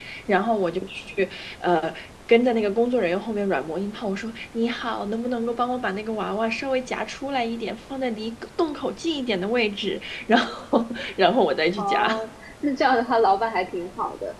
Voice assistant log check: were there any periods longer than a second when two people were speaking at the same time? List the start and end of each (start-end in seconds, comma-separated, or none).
none